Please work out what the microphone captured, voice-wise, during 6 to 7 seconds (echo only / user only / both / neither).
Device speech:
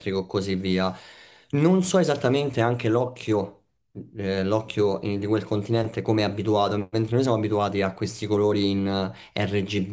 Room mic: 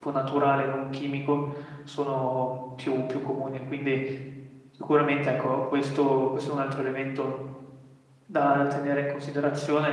user only